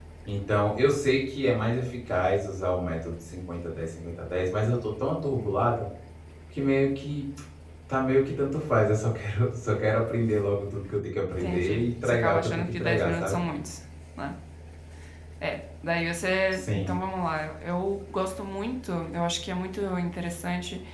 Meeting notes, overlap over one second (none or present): present